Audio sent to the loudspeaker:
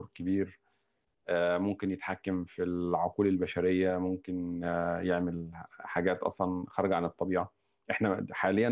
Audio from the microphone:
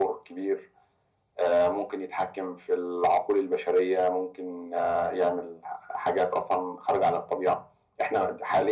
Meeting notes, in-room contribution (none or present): none